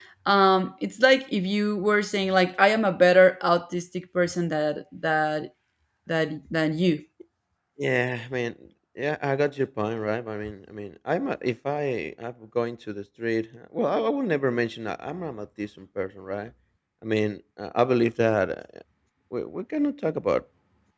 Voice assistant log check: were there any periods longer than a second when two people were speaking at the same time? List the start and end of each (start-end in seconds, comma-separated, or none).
none